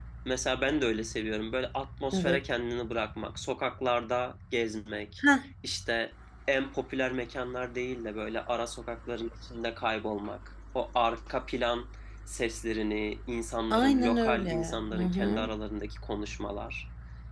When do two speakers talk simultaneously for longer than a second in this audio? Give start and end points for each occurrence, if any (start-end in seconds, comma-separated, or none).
13.7-15.5